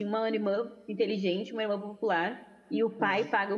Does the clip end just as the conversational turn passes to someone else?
No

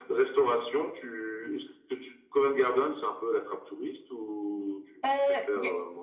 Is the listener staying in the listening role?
No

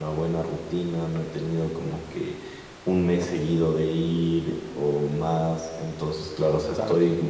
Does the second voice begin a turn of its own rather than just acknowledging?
No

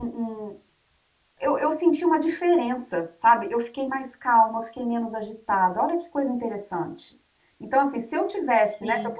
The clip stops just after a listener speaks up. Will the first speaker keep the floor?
Yes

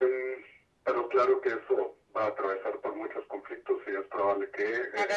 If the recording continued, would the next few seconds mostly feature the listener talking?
Yes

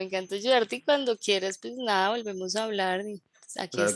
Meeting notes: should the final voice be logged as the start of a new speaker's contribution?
Yes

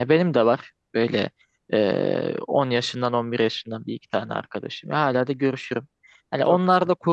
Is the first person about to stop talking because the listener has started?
No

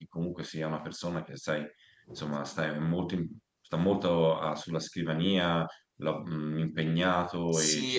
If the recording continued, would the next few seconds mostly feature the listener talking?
Yes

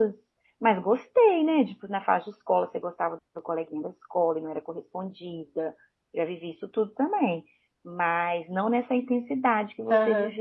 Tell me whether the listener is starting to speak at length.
Yes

